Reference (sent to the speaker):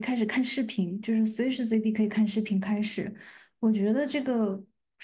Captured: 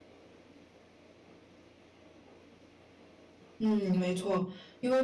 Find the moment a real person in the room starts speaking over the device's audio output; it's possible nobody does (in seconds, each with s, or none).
3.6 s